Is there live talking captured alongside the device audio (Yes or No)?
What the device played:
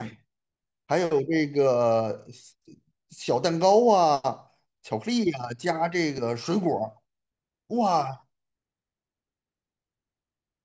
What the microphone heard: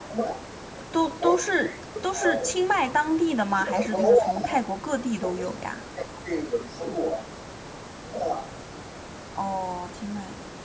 Yes